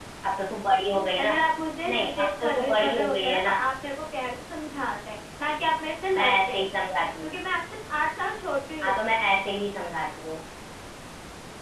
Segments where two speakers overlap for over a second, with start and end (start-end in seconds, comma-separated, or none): 1.9-3.5